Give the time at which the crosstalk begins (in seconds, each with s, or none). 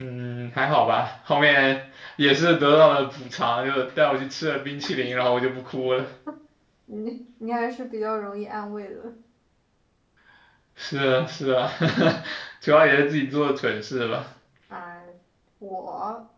none